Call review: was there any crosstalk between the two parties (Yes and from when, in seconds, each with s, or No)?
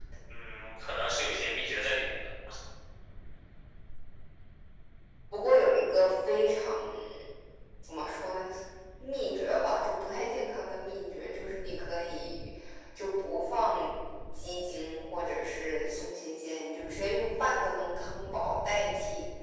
No